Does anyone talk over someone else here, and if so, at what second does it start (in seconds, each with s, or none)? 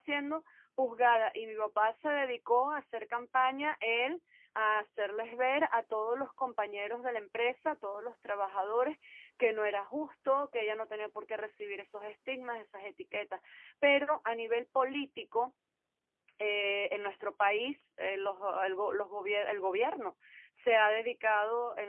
none